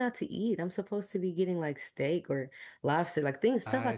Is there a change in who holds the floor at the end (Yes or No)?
Yes